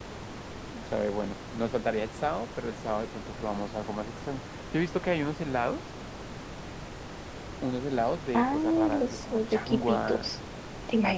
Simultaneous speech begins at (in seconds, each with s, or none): 8.3 s